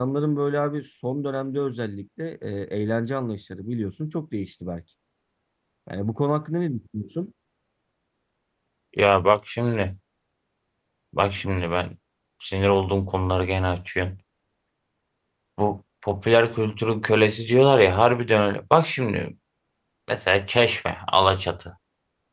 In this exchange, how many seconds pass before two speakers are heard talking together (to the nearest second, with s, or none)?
none